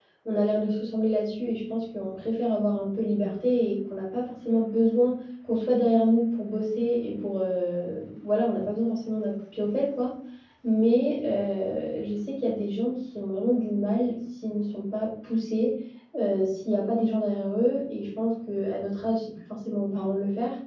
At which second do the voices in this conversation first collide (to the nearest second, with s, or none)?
none